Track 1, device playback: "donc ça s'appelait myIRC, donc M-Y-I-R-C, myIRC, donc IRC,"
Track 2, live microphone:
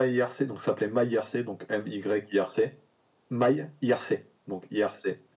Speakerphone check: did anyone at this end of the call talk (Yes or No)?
No